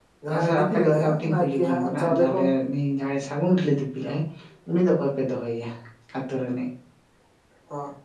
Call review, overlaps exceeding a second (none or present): present